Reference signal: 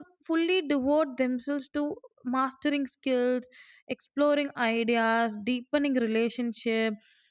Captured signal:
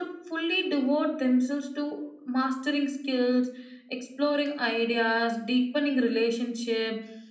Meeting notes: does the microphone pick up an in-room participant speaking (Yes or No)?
No